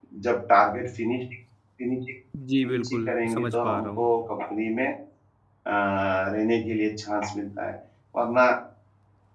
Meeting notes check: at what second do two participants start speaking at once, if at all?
2.6 s

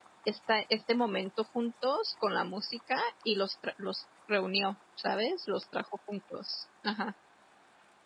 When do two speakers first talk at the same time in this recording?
none

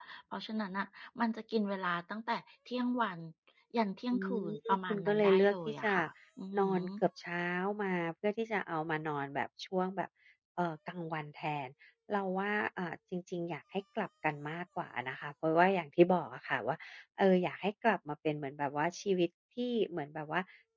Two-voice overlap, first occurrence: 4.1 s

